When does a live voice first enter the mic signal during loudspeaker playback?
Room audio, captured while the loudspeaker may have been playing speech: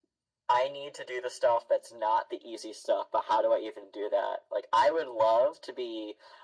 none

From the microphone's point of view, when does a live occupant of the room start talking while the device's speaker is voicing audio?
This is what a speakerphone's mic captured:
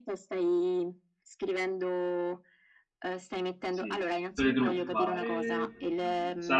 3.7 s

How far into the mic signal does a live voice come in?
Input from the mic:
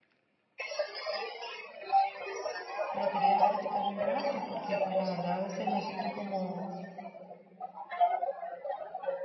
2.9 s

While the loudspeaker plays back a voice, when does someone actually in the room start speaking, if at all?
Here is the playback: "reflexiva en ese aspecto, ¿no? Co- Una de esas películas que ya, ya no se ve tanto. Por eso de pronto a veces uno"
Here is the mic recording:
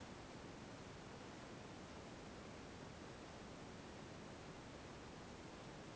none

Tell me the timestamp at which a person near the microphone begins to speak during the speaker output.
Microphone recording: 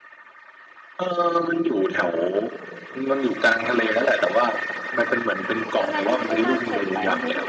5.8 s

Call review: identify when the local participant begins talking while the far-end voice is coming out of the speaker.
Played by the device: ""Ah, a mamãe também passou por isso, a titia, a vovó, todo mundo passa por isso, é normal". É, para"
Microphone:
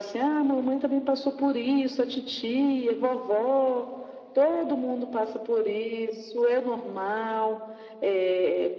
none

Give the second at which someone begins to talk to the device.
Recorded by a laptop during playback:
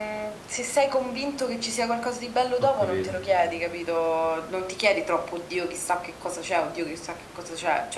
2.6 s

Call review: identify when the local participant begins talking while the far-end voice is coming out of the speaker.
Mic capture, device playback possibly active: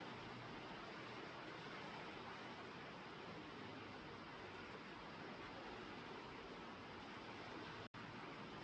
none

